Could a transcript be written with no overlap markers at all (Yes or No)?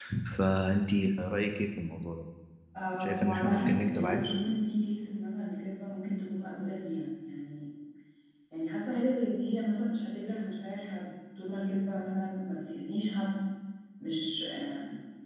No